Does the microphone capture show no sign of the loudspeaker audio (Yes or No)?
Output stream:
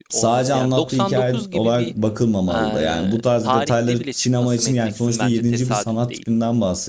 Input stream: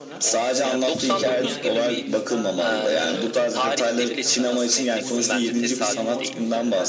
No